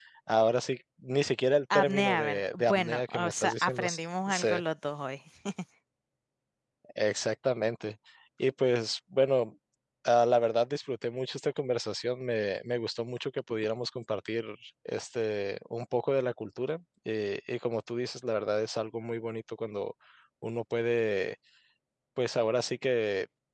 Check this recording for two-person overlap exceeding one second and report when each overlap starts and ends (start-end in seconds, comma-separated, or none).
1.7-3.9